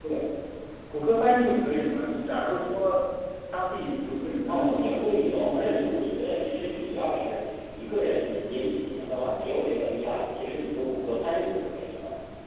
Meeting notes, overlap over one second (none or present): present